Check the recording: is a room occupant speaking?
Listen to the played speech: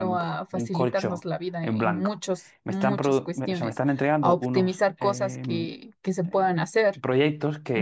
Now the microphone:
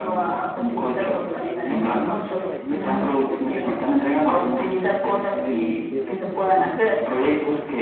Yes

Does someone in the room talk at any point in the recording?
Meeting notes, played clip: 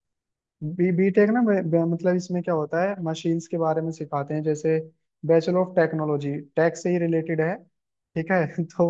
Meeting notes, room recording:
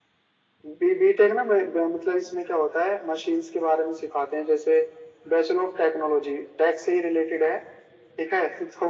No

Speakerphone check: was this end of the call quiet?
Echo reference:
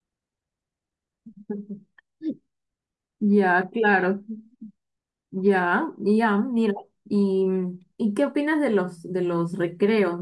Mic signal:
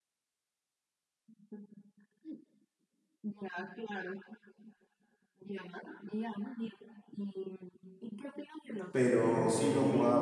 No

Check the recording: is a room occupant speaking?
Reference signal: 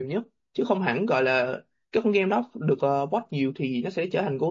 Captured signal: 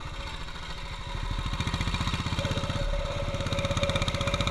No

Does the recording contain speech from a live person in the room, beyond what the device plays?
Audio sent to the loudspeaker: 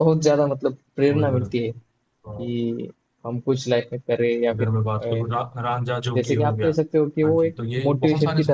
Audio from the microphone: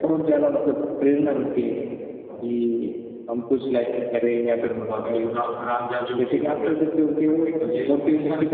No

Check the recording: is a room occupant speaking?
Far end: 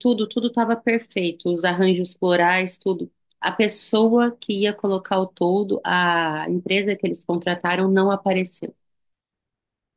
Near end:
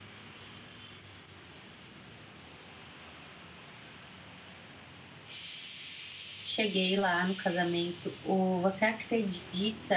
Yes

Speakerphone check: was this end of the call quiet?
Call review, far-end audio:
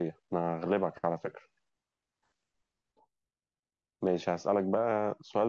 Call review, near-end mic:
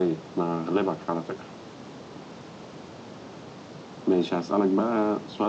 Yes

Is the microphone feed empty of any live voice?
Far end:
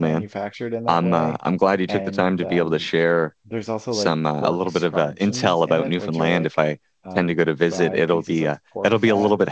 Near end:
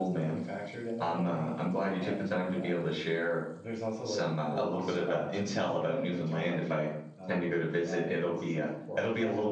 Yes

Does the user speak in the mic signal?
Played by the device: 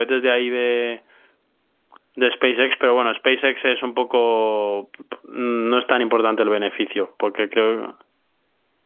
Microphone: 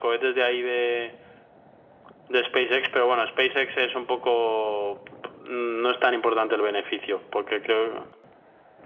No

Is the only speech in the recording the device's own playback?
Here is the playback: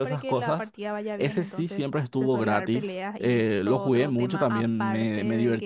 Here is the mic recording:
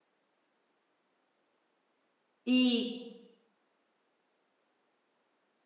No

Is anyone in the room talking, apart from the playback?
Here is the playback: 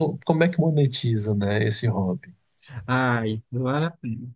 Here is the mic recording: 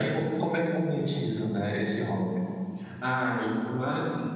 No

